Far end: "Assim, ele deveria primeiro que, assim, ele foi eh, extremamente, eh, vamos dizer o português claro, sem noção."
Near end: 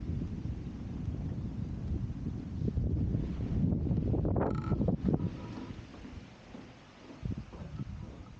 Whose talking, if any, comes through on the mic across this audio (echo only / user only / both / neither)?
neither